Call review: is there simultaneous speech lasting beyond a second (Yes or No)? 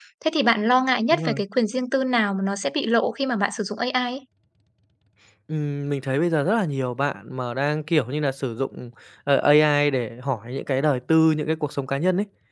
No